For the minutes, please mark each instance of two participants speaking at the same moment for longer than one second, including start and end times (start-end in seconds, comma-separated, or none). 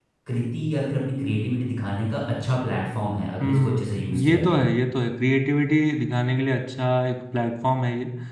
3.4-4.6